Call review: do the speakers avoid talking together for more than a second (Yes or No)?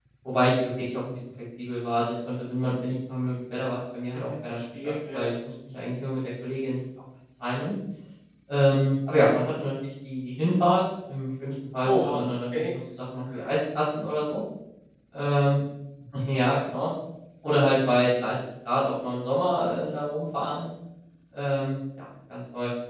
No